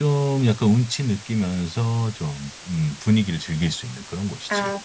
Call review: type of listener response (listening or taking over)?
taking over